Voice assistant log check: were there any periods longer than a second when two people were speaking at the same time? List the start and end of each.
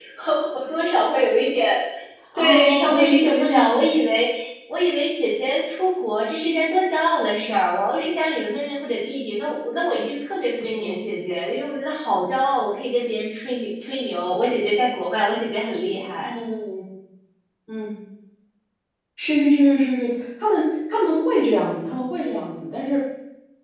2.4-3.9

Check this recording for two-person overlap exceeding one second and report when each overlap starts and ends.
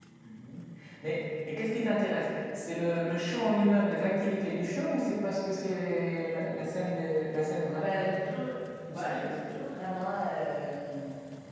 none

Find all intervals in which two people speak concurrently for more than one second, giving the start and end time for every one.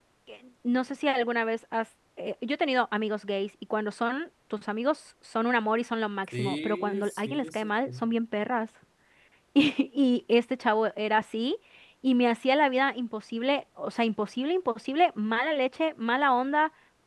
6.4-7.9

